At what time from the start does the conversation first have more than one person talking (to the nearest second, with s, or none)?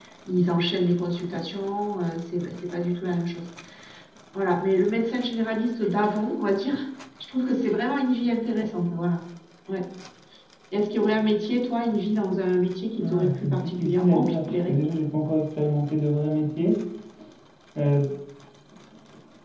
13 s